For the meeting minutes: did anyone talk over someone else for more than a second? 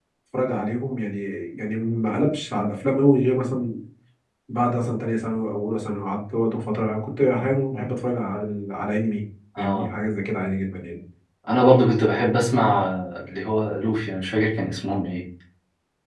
No

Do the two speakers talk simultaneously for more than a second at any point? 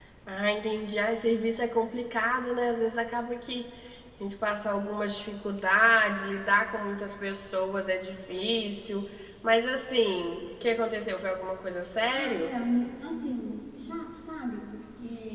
No

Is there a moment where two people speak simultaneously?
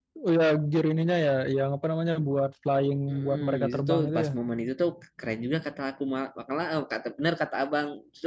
Yes, from 3.1 s

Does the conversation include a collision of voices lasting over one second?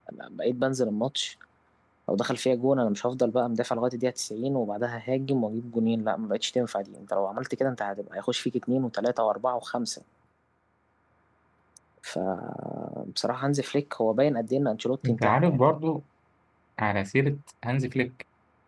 No

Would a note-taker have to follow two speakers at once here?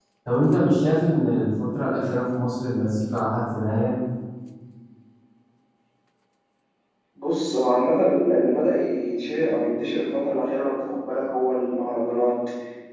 No

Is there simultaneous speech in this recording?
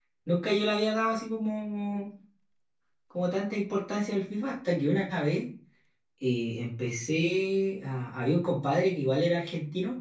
No

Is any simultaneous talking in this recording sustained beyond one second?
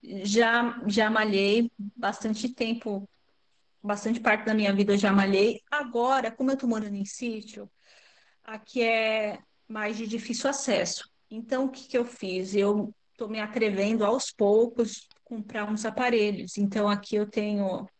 No

